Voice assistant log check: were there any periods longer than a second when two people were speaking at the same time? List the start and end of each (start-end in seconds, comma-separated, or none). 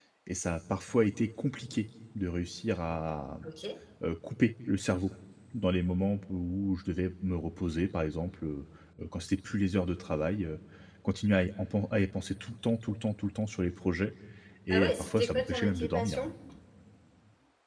14.7-16.3